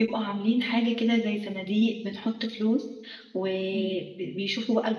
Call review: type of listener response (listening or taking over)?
listening